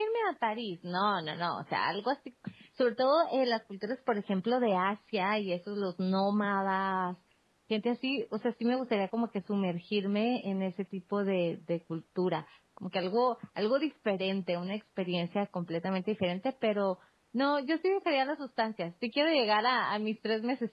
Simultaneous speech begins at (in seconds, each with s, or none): none